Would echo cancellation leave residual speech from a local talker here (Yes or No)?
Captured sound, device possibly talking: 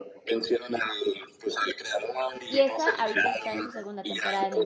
Yes